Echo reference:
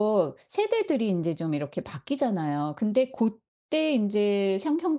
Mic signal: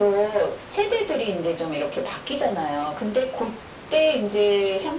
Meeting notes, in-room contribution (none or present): none